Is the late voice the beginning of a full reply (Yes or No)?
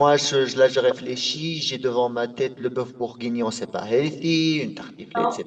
No